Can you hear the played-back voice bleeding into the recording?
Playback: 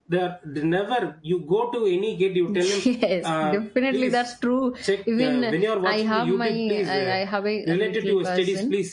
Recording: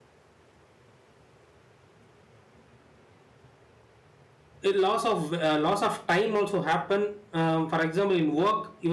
No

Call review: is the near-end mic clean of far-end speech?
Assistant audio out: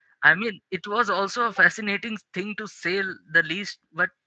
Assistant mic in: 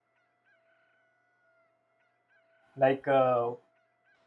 Yes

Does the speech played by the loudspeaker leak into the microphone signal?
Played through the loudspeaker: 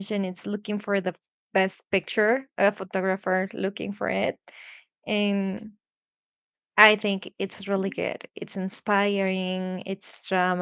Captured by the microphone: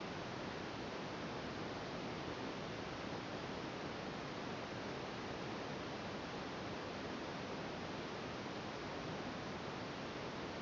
No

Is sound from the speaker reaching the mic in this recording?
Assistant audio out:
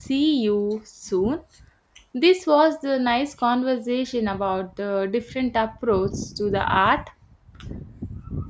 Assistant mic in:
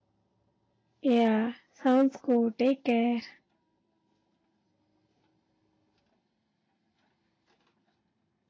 No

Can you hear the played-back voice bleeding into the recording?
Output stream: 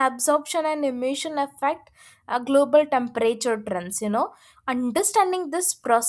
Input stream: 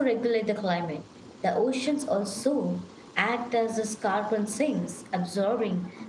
No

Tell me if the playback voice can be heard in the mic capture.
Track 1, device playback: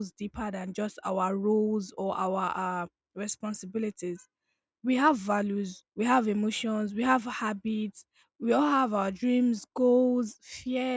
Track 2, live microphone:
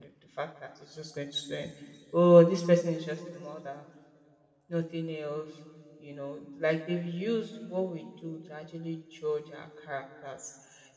No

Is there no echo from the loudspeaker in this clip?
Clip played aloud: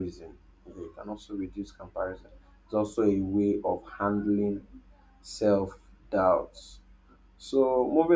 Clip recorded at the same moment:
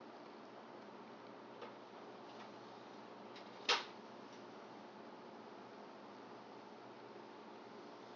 Yes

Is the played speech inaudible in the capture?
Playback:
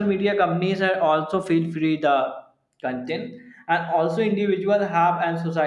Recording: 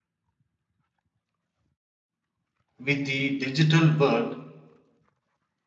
Yes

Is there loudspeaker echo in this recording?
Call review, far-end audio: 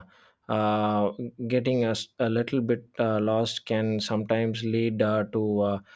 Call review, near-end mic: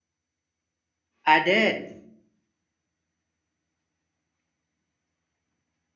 No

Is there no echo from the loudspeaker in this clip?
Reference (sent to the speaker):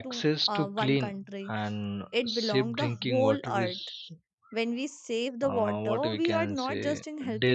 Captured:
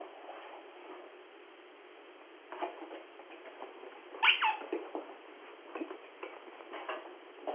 Yes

